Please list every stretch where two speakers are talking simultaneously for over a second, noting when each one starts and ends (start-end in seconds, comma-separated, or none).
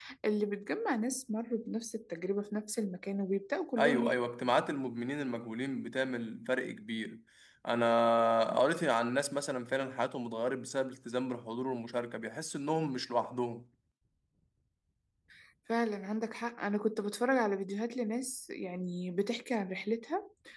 none